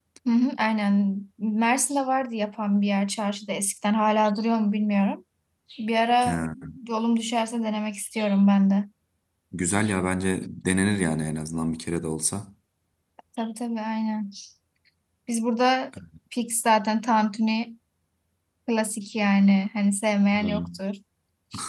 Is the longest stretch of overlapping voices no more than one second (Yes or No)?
Yes